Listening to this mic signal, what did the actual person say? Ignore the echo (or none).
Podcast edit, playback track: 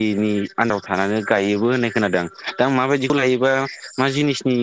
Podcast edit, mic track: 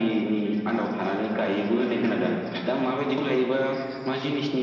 none